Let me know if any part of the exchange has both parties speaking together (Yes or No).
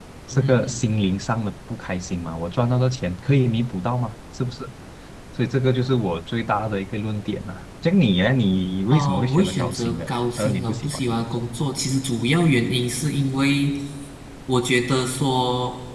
Yes